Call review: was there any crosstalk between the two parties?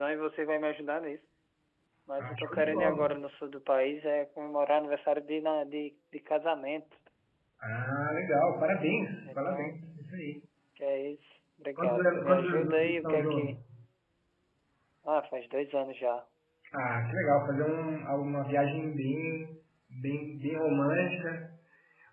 Yes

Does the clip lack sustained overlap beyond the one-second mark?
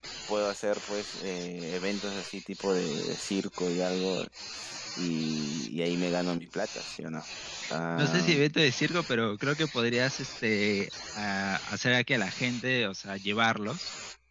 Yes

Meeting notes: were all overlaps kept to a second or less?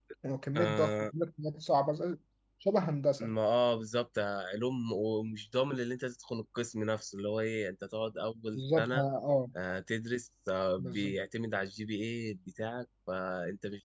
Yes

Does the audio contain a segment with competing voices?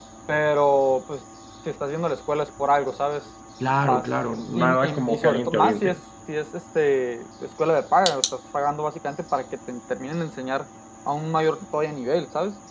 Yes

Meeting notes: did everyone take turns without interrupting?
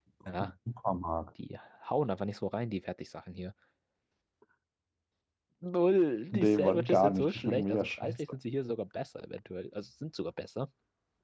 No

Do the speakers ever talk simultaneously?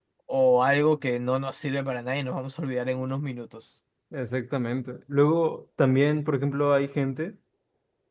No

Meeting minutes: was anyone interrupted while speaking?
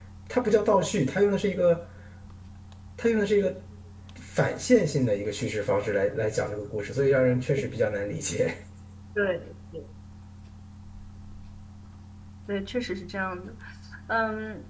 No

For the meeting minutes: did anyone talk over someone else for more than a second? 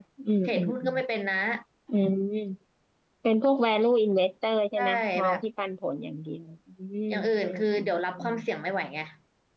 Yes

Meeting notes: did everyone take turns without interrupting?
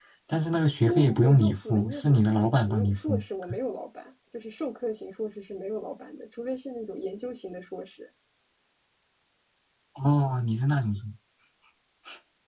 No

